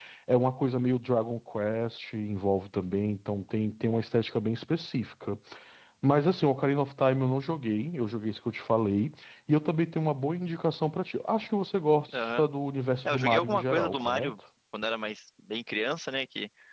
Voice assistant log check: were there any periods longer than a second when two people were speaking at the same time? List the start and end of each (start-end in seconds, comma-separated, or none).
13.1-14.3